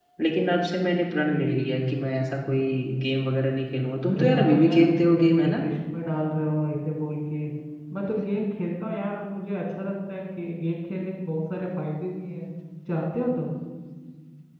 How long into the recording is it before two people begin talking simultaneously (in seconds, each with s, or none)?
4.1 s